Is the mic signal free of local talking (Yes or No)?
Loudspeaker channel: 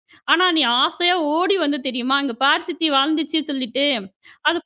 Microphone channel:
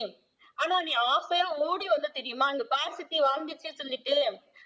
Yes